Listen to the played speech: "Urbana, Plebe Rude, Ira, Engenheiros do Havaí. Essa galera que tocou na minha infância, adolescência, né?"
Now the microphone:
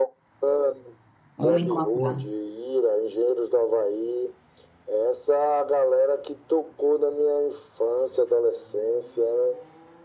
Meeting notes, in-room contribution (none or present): present